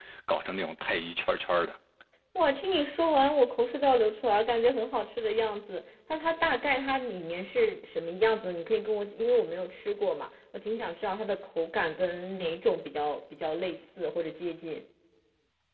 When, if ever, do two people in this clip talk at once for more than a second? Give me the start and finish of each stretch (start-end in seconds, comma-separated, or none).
none